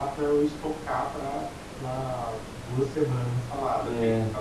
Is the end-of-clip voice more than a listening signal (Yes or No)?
No